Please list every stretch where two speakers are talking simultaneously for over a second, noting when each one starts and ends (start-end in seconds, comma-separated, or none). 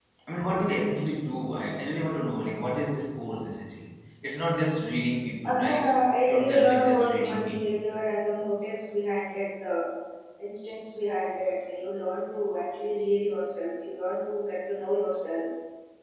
6.2-7.6